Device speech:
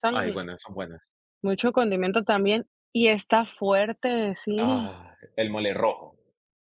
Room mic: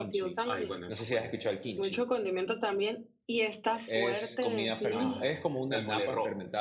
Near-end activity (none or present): present